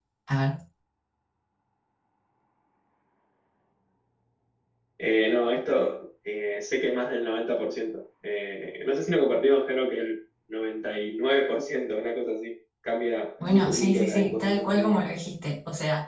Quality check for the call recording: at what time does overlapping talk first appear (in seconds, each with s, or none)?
13.4 s